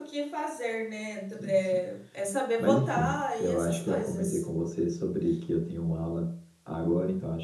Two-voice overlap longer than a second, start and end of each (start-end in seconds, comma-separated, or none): 2.6-4.5